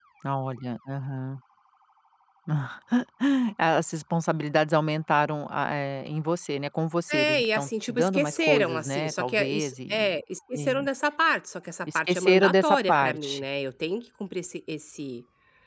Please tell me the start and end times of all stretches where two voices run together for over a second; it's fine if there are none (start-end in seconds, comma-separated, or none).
7.1-10.2, 12.0-13.4